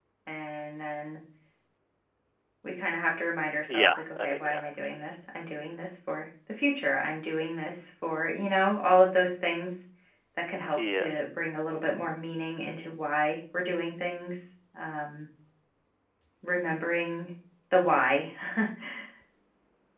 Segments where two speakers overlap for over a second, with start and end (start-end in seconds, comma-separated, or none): 3.7-5.1